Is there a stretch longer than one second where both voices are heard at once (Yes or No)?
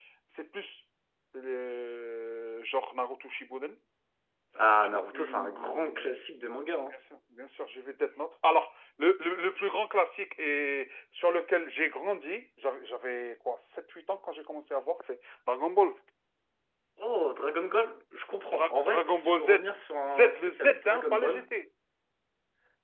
Yes